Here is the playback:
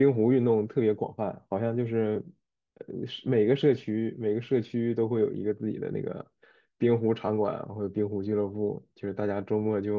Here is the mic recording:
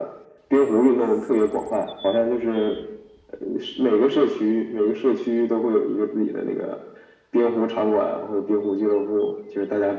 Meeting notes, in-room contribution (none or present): none